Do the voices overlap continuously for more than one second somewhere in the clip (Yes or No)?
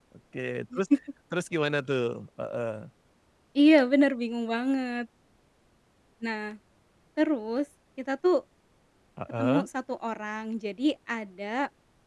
No